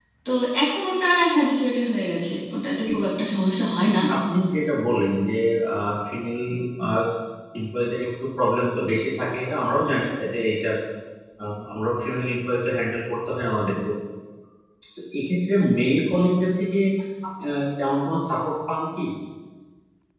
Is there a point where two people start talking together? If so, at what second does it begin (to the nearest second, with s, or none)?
none